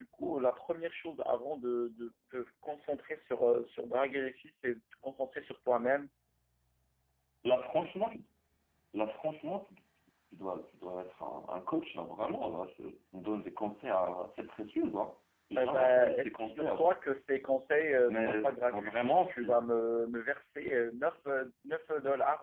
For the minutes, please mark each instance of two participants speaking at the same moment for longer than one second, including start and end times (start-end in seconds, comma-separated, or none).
15.6-17.0, 18.0-19.7